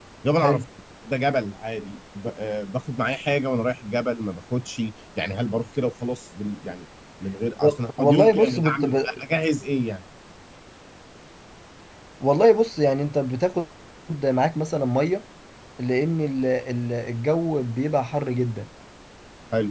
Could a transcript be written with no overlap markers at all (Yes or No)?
No